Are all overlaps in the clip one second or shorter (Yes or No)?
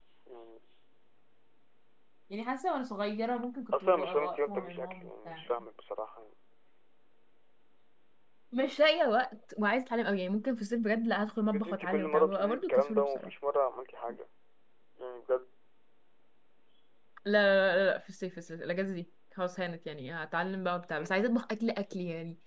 No